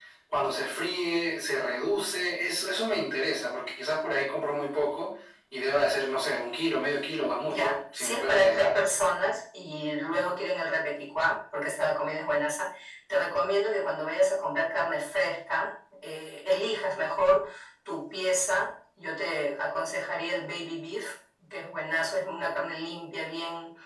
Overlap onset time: 7.5 s

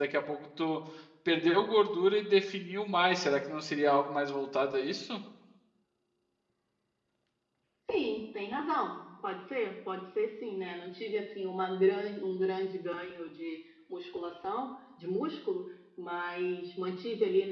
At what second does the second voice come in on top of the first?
none

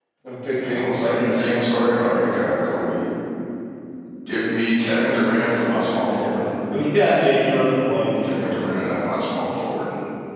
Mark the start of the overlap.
0.6 s

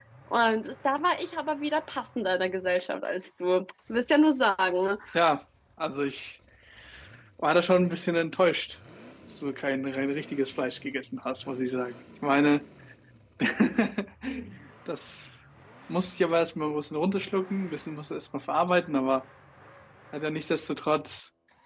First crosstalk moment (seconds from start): none

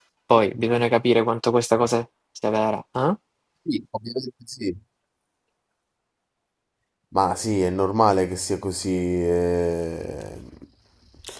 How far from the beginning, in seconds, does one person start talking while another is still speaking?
none

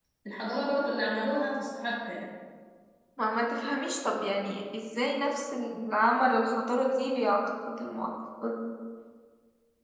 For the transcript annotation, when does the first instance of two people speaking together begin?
none

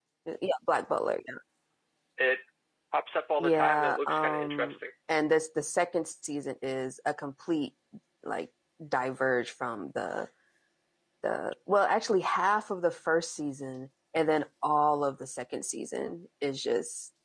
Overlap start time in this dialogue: 3.4 s

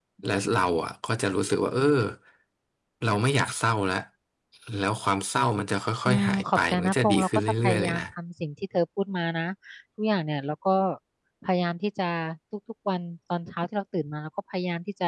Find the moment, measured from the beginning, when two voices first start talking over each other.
6.0 s

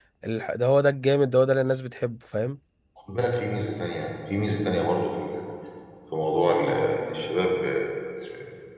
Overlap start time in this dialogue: none

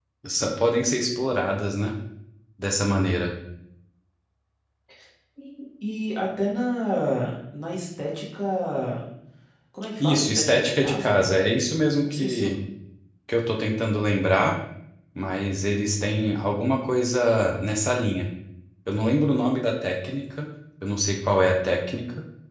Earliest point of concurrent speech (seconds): 10.0 s

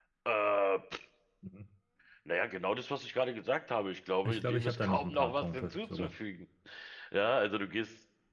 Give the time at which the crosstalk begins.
4.2 s

